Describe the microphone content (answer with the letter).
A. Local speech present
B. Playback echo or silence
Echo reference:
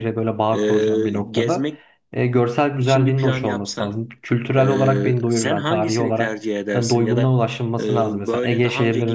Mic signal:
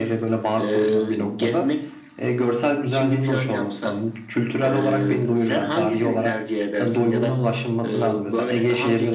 B